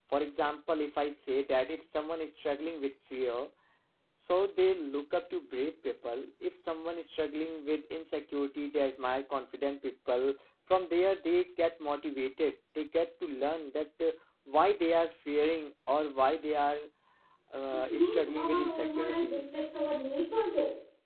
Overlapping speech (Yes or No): Yes